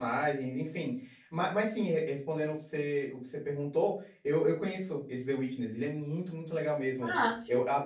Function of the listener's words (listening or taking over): listening